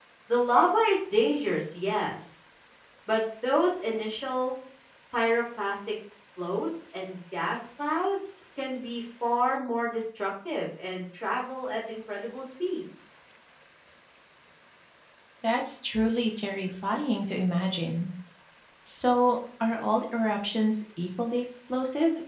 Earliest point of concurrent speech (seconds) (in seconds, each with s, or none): none